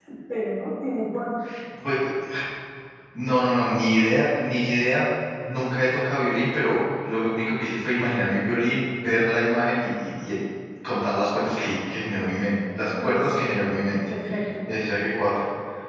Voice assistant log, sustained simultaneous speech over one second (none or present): none